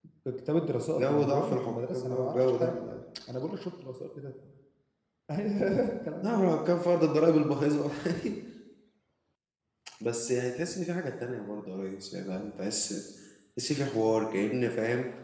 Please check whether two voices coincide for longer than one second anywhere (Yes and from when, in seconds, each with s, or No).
Yes, from 0.9 s